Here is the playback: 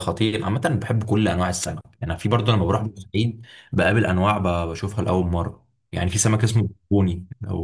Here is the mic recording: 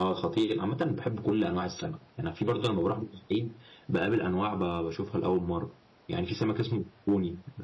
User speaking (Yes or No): No